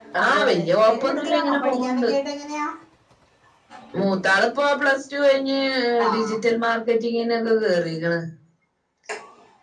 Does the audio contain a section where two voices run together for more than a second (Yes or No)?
Yes